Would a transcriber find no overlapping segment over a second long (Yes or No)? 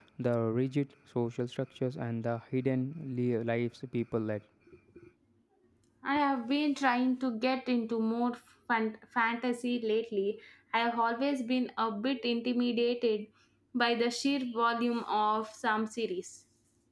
Yes